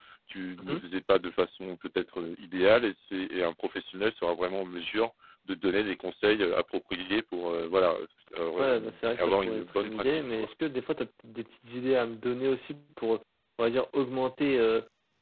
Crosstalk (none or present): present